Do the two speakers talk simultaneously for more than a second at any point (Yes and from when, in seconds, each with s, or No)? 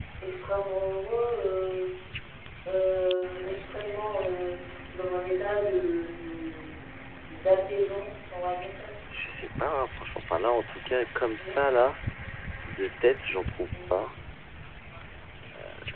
No